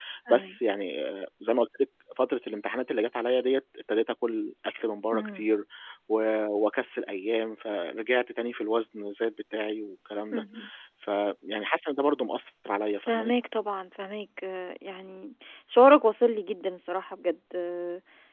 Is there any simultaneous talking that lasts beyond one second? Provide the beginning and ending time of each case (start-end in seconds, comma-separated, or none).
none